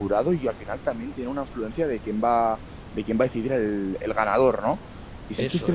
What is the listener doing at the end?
listening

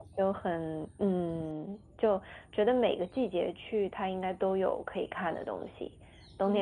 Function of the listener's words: listening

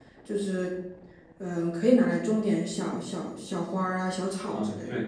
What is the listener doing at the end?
taking over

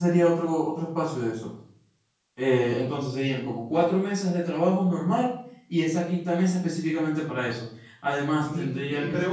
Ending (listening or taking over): taking over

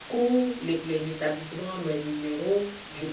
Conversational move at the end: listening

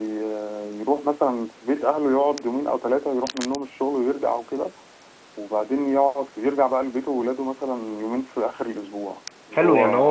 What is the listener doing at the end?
taking over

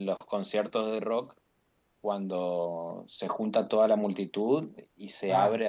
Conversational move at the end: listening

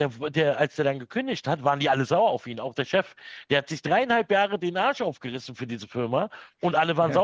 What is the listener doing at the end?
listening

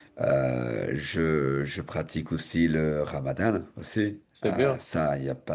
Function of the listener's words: listening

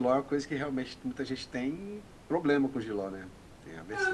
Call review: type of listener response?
taking over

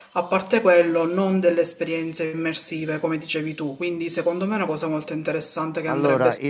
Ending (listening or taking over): taking over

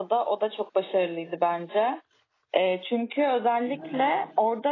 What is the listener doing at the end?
listening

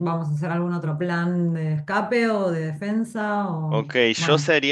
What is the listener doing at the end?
taking over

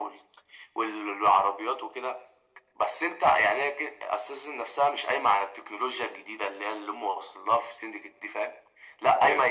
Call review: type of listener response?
listening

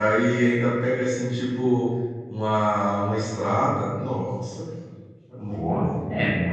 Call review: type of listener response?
taking over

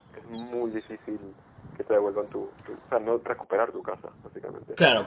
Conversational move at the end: taking over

